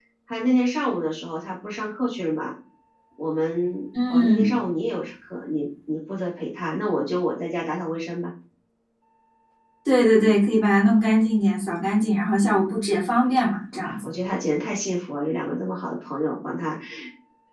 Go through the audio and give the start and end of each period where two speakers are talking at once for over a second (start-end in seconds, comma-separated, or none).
none